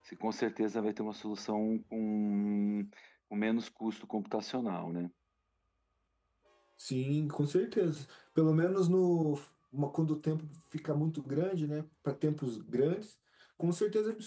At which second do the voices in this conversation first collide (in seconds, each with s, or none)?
none